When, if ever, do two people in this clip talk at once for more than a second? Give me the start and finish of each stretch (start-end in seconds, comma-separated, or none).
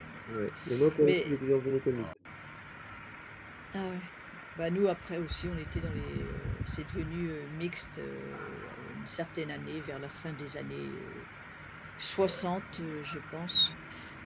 none